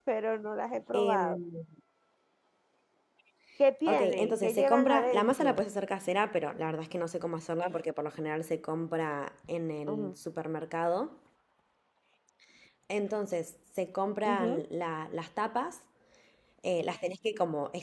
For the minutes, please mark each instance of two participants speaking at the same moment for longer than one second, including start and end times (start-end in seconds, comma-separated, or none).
3.9-5.6